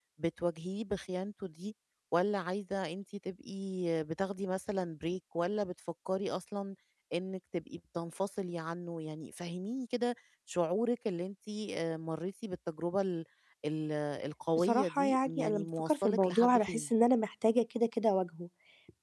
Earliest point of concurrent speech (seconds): 14.6 s

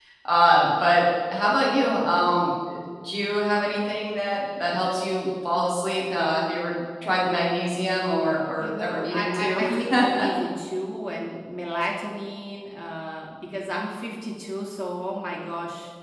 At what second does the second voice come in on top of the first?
8.6 s

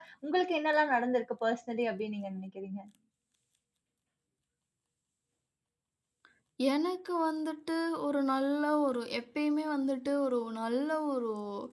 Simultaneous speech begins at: none

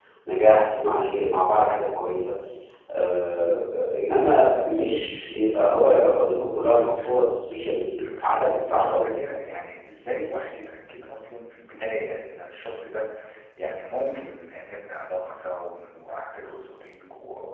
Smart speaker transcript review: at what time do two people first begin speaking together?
8.0 s

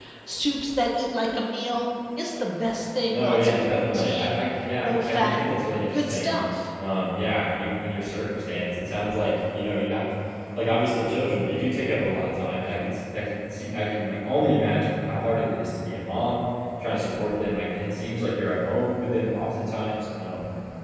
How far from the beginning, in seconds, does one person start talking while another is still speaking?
3.1 s

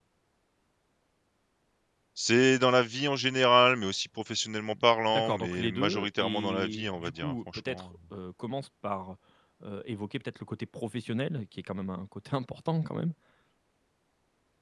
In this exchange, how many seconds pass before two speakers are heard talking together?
5.1 s

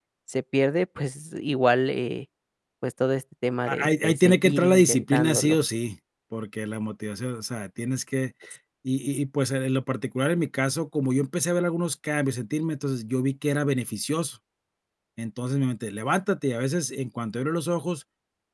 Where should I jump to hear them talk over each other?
3.7 s

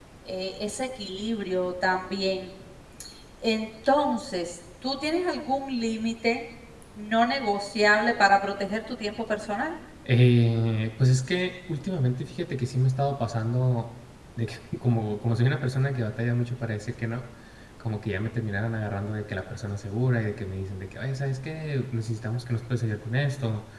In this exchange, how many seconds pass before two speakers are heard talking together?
none

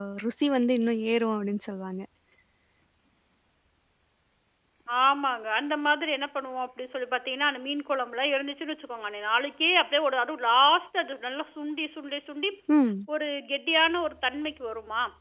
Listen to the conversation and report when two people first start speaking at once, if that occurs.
none

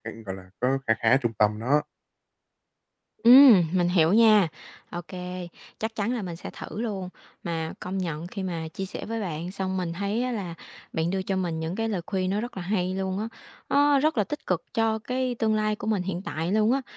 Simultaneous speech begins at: none

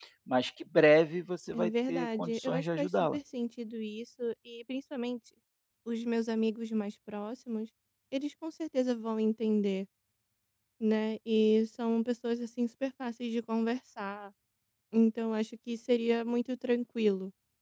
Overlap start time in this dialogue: 1.5 s

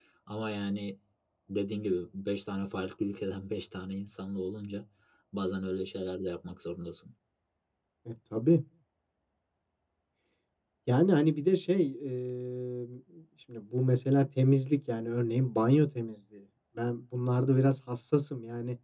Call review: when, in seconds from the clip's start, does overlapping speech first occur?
none

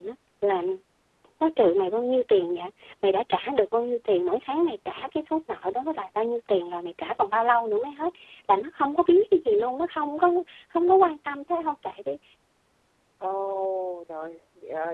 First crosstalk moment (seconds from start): none

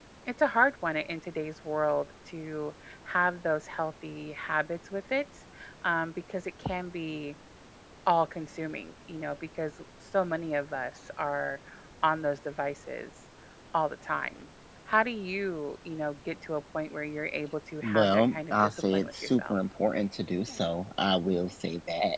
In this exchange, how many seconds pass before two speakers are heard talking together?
17.8 s

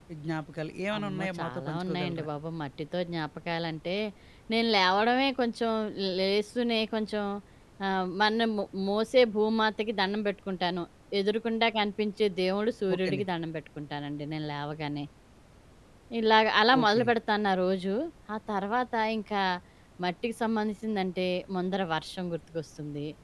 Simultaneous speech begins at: 1.0 s

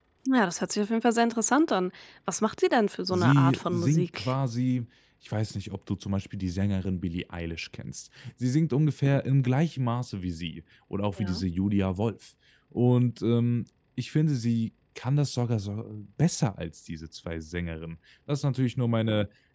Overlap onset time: 3.1 s

